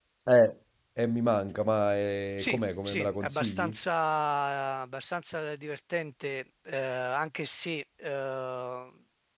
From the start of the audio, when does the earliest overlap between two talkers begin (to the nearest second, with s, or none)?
2 s